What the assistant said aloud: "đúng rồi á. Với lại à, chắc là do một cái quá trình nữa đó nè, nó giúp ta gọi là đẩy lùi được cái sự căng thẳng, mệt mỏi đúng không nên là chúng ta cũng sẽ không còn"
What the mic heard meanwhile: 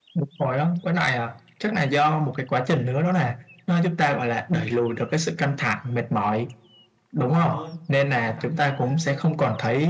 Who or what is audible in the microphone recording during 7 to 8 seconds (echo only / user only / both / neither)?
both